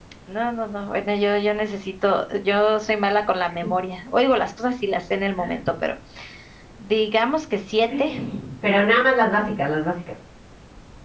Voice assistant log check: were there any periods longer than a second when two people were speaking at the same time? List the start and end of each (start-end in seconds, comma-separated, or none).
none